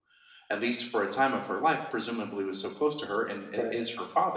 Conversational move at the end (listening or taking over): listening